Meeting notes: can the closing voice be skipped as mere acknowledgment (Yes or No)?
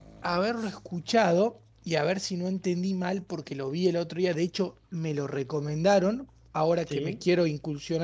Yes